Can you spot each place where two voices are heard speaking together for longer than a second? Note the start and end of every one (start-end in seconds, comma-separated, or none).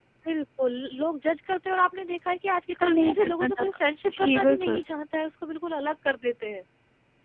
2.7-4.8